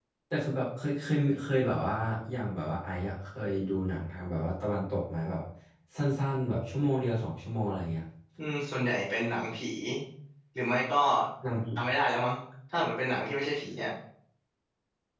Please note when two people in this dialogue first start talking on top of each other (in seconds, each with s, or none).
none